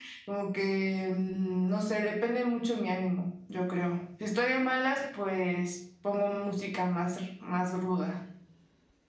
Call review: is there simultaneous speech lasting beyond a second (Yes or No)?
No